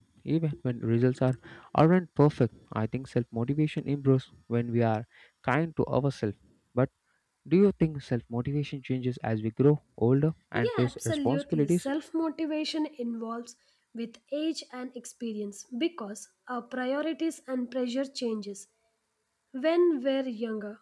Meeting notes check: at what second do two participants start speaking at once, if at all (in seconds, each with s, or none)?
10.6 s